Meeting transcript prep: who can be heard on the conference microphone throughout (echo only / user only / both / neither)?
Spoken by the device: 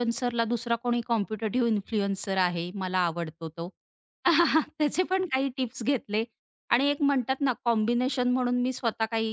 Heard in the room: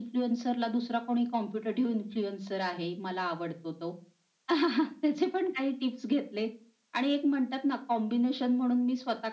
echo only